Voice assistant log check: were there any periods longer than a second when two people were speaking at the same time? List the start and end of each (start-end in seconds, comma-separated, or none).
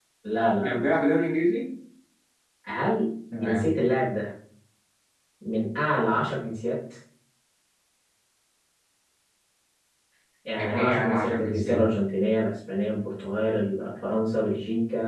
10.6-11.8